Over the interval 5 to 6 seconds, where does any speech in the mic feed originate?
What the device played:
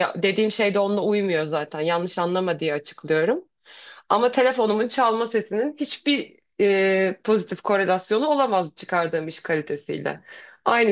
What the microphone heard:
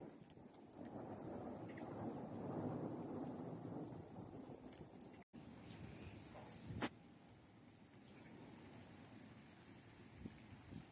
neither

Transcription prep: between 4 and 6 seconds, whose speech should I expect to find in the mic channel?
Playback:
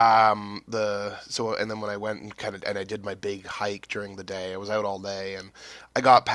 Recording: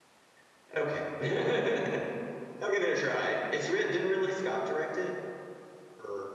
user only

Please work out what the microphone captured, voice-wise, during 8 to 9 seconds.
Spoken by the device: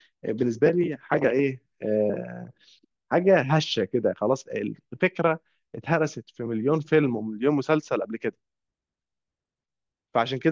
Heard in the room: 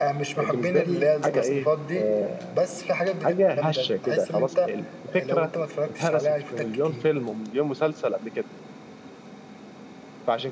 echo only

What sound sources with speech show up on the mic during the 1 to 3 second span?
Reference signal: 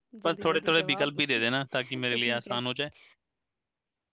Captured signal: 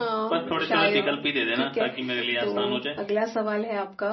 both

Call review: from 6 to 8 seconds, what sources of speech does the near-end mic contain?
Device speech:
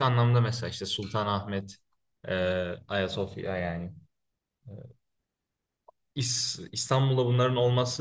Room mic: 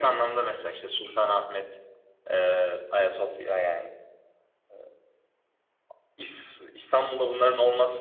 echo only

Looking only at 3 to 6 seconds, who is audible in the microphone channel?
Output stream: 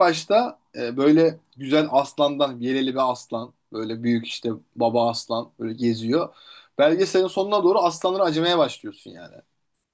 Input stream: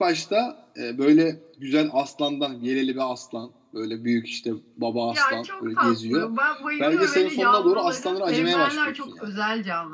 both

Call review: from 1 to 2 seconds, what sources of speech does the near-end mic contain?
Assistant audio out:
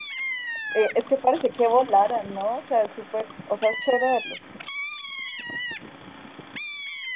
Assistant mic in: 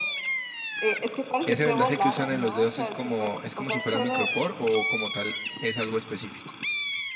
both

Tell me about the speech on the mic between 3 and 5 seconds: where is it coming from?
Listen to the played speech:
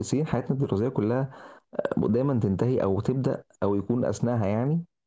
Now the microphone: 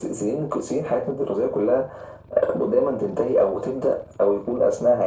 echo only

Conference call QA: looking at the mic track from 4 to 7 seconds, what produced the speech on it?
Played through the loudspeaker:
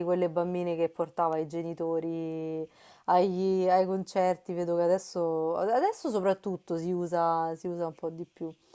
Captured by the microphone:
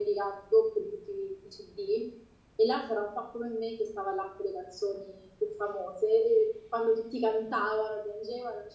user only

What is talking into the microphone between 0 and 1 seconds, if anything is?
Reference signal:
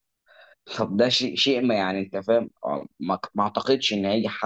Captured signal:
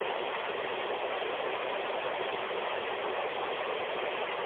neither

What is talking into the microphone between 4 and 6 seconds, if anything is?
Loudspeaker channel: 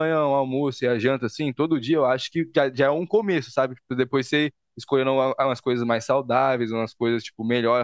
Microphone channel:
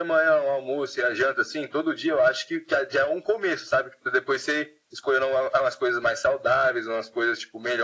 echo only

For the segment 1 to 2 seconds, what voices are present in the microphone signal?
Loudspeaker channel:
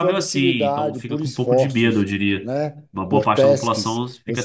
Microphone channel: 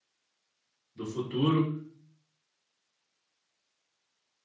user only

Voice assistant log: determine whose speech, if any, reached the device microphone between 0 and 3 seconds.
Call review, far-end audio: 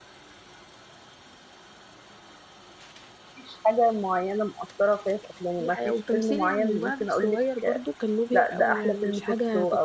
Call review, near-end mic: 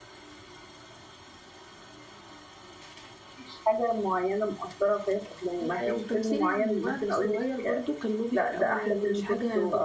neither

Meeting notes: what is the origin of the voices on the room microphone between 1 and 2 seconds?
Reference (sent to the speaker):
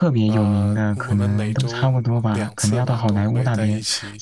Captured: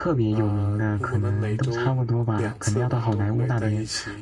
echo only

